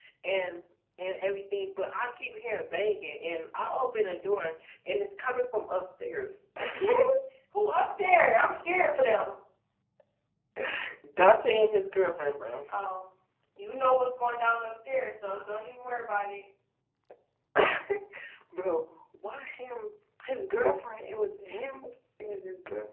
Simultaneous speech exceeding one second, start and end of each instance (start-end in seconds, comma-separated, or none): none